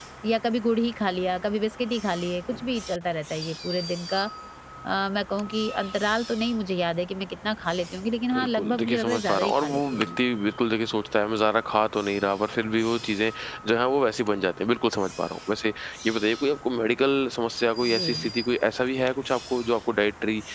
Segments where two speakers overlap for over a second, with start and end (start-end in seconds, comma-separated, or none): 8.3-10.1